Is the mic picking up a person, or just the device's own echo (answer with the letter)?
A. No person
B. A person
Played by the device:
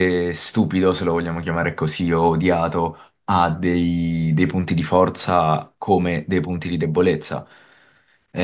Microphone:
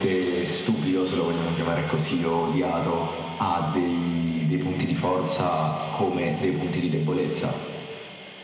A